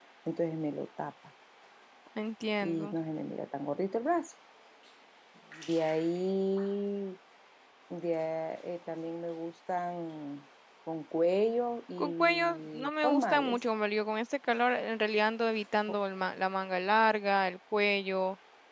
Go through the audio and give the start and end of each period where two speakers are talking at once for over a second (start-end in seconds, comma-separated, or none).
12.0-13.6